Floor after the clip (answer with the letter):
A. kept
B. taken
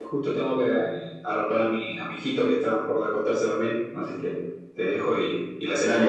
B